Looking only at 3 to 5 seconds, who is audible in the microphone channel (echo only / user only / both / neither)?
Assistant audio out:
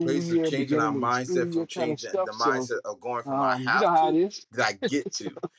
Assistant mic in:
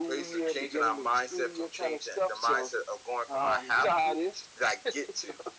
echo only